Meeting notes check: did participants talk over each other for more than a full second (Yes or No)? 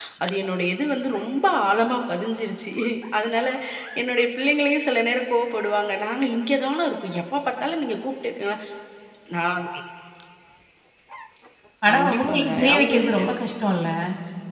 Yes